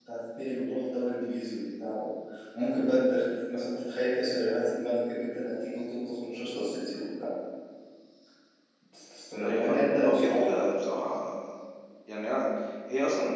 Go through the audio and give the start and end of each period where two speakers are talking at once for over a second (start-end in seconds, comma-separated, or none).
9.4-10.6